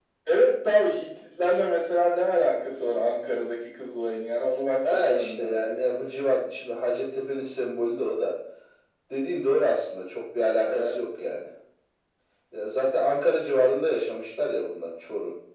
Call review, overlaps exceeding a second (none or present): present